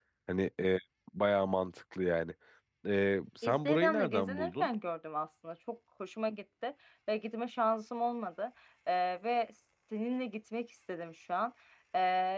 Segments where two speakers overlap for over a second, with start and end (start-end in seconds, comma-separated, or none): 3.4-4.7